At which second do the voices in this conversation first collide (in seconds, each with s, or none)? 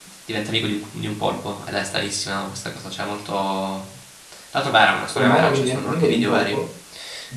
5.2 s